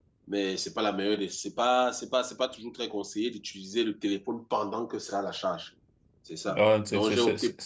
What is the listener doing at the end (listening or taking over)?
taking over